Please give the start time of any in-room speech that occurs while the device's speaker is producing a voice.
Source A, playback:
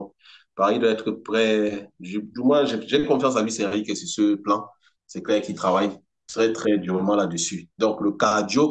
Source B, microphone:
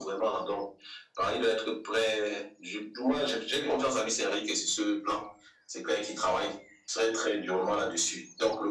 none

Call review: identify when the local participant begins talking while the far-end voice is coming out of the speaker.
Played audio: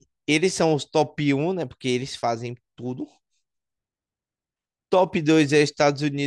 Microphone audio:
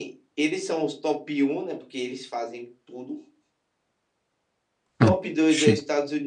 5.0 s

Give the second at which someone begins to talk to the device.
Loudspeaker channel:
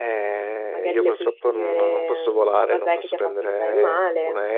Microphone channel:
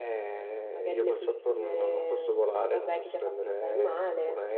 none

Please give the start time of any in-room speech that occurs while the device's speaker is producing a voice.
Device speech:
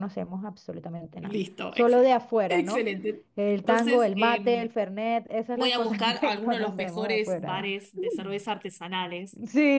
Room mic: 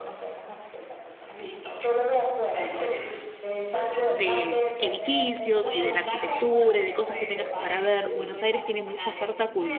4.1 s

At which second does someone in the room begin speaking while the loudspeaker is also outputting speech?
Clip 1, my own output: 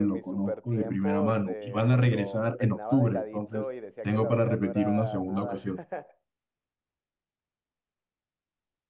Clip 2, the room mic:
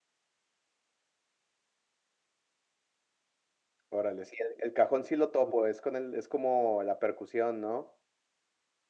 3.9 s

